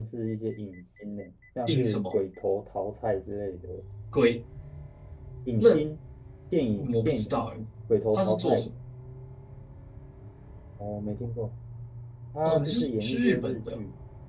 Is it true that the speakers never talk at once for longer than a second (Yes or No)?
No